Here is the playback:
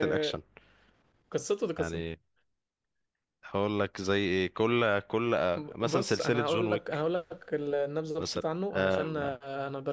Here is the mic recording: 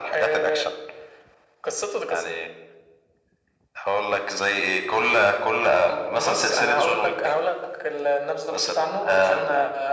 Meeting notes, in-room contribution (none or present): none